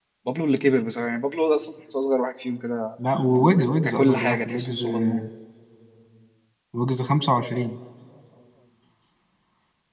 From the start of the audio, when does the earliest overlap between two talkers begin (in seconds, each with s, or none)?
3.9 s